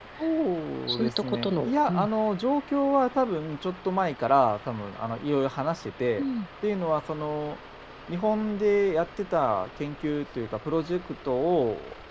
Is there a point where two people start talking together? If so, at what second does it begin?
1 s

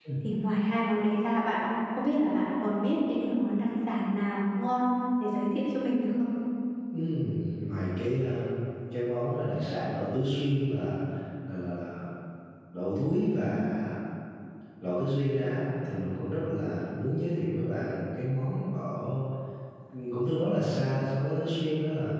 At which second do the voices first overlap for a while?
none

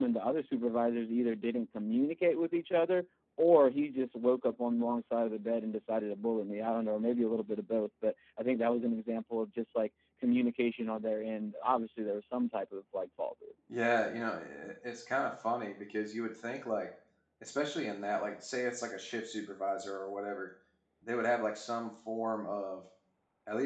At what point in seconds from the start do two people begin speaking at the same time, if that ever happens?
none

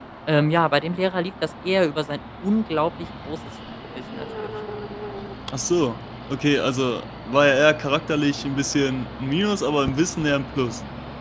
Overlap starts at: none

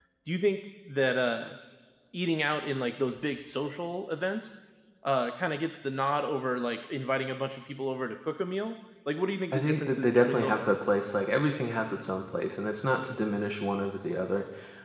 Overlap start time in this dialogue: 10 s

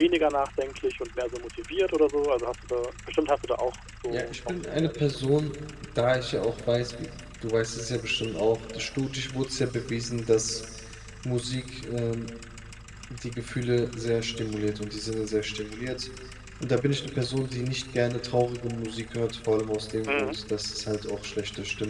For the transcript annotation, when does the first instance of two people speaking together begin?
4 s

